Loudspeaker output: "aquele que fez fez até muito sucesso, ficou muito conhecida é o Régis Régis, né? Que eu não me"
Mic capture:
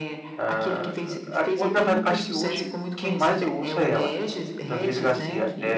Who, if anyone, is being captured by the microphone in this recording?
both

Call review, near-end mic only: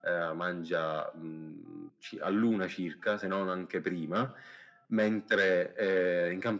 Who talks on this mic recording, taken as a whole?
echo only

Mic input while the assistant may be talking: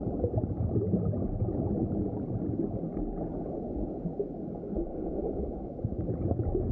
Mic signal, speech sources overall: neither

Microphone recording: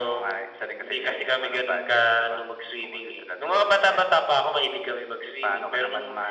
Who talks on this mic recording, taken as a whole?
echo only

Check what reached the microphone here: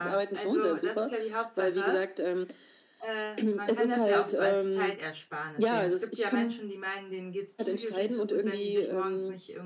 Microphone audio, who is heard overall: both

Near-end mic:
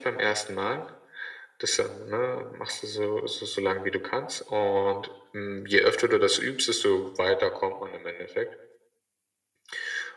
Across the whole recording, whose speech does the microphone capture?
echo only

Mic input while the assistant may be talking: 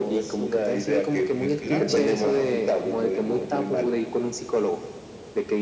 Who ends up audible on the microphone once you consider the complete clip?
both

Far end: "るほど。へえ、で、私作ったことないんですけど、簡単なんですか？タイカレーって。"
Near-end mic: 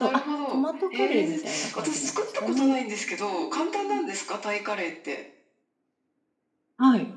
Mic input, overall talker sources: both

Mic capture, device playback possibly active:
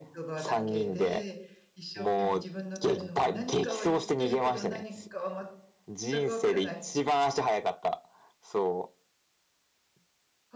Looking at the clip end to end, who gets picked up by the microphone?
both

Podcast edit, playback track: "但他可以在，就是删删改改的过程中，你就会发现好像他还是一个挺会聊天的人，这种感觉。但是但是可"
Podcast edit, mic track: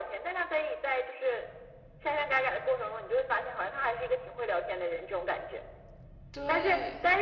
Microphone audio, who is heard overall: both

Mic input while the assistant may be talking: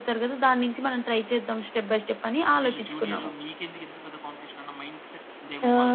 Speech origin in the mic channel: both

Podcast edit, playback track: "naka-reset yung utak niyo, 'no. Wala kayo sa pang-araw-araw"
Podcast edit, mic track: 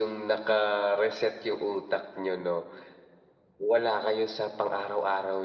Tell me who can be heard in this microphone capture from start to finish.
echo only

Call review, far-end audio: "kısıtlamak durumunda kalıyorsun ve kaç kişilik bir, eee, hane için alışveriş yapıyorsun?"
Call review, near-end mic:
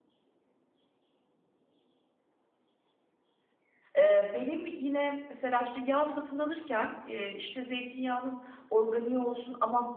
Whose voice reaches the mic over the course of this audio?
user only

